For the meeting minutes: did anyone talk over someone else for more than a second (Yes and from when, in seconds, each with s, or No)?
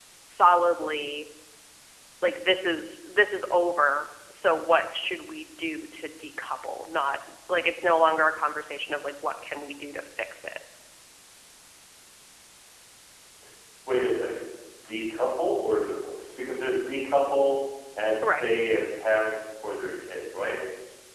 No